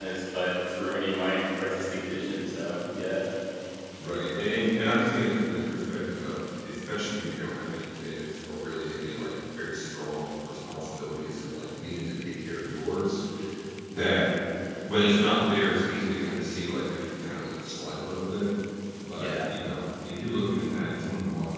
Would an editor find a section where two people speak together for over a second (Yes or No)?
No